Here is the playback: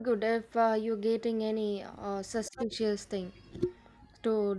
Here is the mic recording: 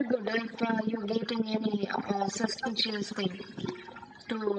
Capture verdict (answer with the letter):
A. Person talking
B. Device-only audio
B